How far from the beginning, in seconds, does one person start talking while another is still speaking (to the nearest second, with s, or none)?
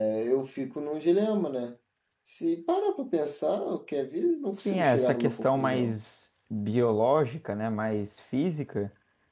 5 s